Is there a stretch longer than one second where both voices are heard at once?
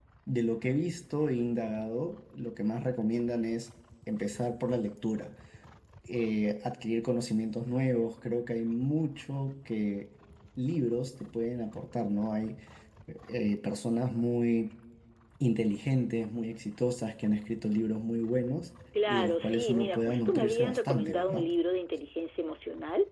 Yes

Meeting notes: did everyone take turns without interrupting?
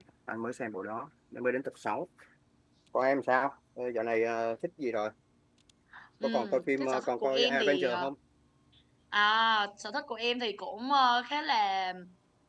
No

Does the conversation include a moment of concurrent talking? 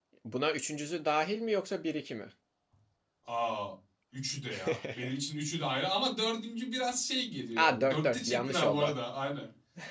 Yes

